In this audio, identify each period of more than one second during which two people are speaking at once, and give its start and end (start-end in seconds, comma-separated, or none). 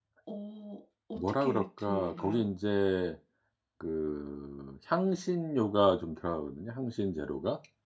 1.1-2.5